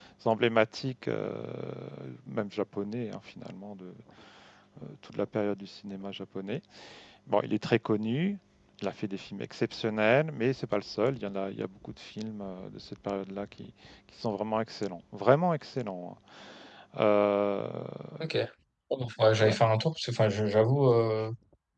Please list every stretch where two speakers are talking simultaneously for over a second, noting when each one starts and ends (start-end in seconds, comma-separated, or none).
none